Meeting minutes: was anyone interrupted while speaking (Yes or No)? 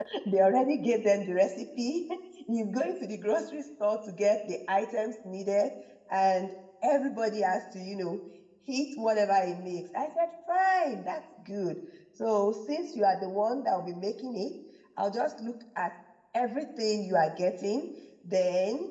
No